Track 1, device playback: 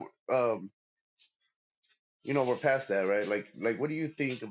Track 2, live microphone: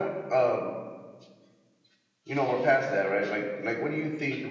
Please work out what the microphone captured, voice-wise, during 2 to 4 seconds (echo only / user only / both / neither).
echo only